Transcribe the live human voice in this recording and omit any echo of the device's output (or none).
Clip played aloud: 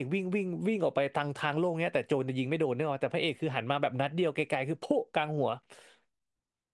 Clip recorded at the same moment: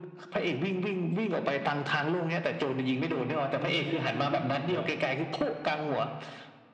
คือเนื้อเรื่องคือวิ่งอย่างเดียว